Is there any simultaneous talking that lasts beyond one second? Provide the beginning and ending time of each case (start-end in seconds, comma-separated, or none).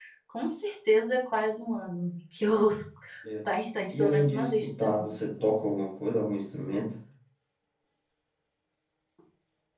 3.9-5.2